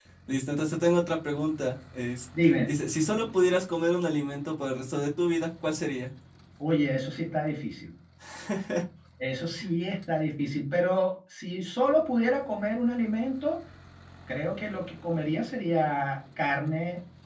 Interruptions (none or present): none